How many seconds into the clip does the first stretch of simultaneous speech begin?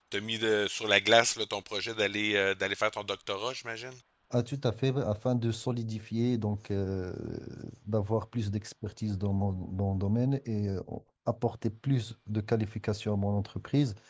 none

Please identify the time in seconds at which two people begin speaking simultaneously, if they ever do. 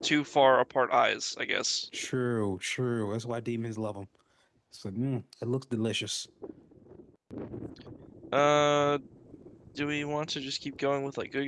none

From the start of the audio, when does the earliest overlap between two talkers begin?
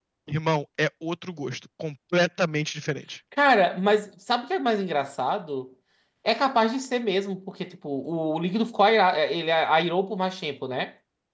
none

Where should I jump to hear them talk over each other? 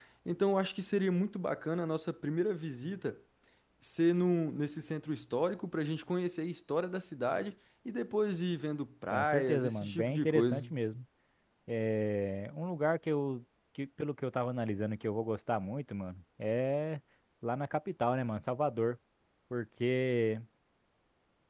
9.1 s

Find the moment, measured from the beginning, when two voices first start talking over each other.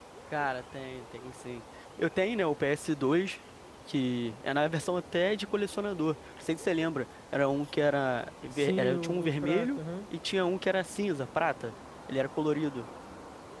8.5 s

